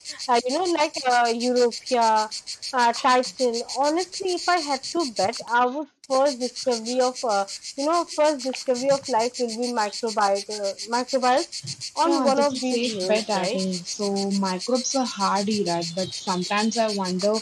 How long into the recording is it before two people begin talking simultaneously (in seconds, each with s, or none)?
12.1 s